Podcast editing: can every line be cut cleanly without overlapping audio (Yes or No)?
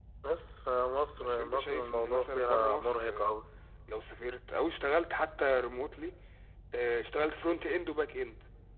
No